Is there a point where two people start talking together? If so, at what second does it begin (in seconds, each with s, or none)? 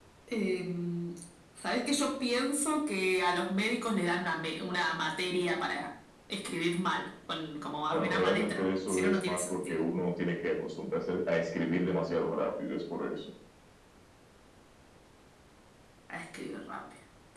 7.9 s